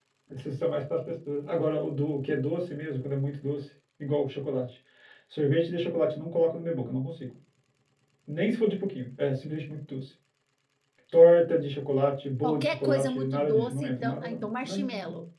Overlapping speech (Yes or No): Yes